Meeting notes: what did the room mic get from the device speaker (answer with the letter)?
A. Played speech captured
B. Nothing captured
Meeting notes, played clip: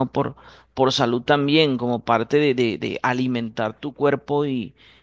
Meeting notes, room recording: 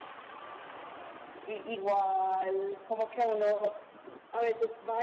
B